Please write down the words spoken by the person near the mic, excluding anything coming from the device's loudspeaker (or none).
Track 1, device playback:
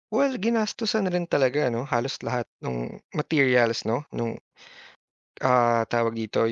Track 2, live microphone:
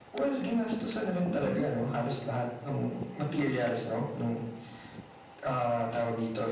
Mm,